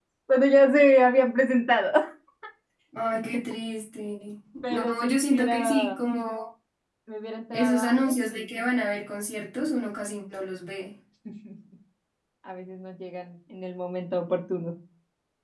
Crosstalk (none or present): present